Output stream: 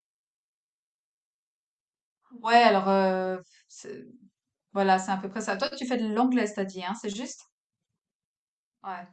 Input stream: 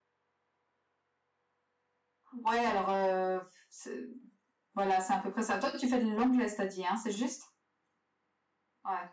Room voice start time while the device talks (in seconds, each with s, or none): none